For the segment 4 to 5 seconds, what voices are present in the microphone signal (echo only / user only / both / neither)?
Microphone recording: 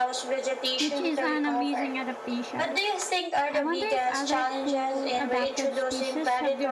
both